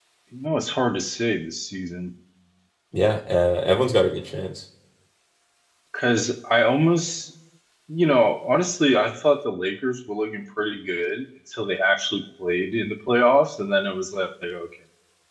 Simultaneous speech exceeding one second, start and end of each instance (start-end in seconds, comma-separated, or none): none